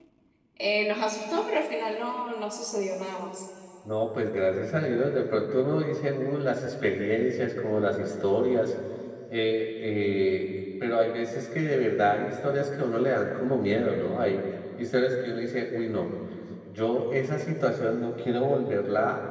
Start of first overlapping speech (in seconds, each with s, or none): none